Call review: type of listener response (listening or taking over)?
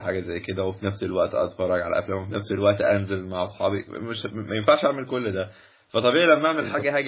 listening